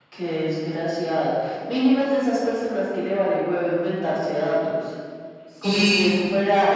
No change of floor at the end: Yes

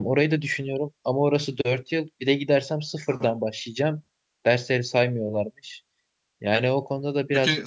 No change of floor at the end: No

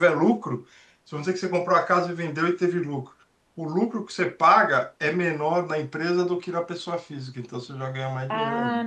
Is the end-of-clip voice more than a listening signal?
Yes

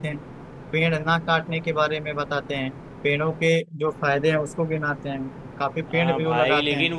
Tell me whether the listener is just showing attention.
No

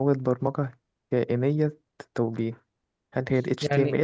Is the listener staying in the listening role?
No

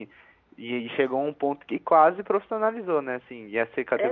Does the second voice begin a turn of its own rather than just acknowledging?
No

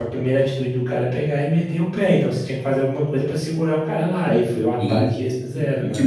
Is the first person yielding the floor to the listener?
Yes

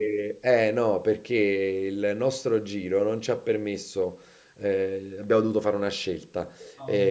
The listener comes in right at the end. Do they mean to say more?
No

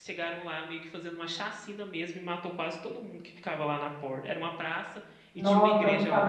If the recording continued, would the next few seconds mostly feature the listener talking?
Yes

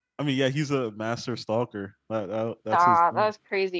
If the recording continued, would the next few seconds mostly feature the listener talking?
Yes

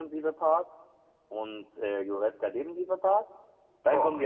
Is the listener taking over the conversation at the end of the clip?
No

